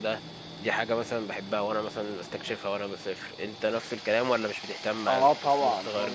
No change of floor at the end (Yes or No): No